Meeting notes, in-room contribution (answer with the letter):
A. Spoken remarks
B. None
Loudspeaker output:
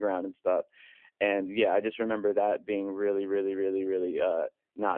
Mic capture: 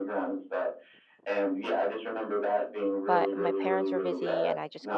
A